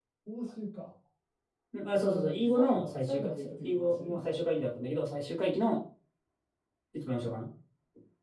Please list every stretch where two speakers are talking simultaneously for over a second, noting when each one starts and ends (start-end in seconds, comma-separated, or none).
1.9-4.2